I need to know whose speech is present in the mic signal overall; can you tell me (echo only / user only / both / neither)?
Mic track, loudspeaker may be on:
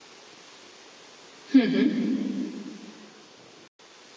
user only